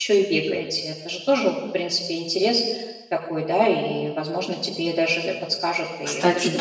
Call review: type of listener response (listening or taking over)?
taking over